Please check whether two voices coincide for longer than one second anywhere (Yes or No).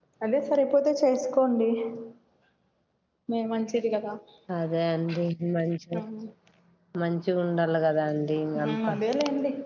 No